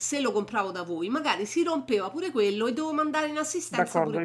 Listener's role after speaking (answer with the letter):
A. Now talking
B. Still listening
A